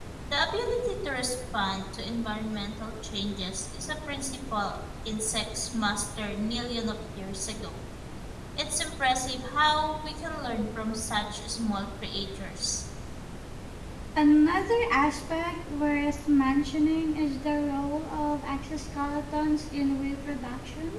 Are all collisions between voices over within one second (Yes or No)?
Yes